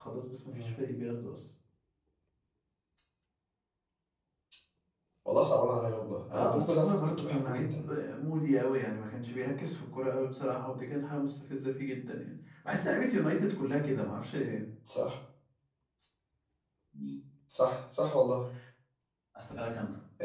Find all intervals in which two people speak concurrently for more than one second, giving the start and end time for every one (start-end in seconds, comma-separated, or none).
6.3-7.9